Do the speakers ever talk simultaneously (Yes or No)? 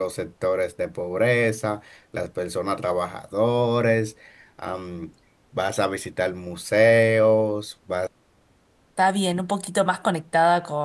No